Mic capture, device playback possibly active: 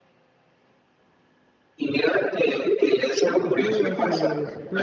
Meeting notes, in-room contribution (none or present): present